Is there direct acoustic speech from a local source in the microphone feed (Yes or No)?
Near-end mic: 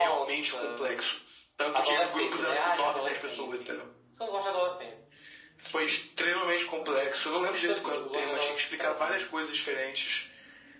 No